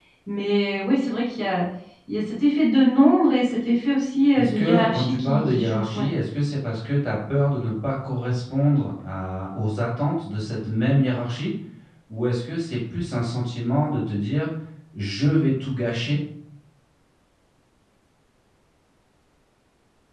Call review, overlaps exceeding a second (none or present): present